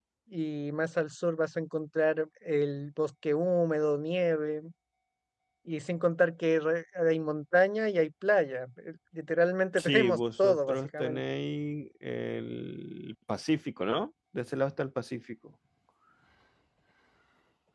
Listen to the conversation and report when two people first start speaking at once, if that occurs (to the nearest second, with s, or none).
10 s